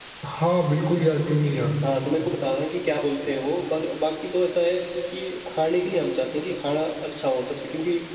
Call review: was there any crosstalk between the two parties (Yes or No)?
No